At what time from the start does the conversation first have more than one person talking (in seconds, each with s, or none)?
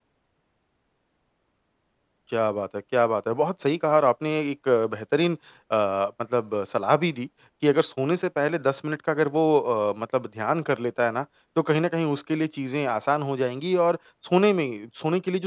none